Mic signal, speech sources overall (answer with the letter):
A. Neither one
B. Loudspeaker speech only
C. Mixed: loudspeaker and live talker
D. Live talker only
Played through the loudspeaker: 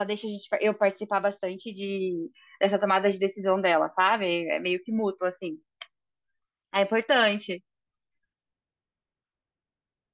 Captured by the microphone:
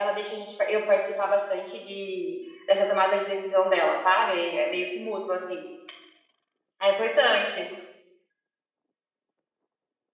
B